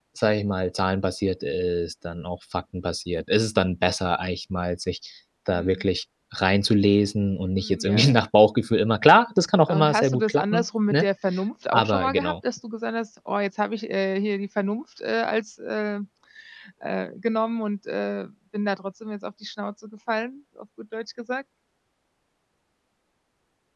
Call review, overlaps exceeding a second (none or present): present